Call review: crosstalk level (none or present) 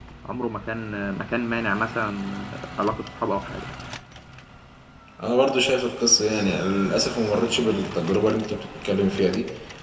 none